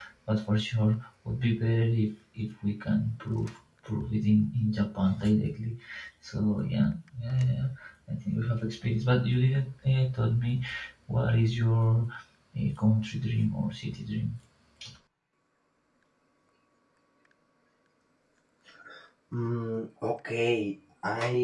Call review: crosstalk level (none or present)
none